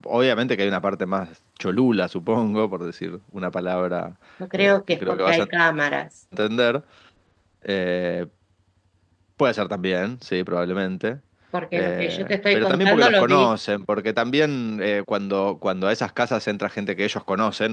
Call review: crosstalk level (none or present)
present